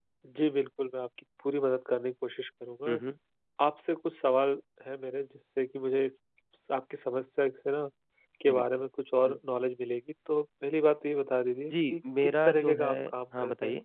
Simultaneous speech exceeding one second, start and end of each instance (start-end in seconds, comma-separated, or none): 11.7-12.9